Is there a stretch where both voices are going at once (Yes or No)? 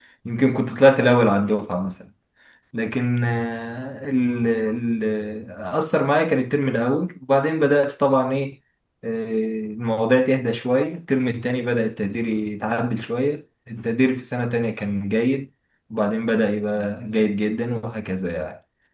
No